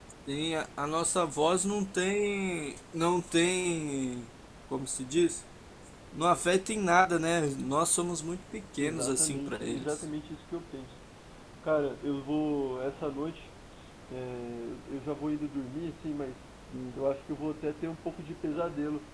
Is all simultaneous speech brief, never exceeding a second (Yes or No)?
No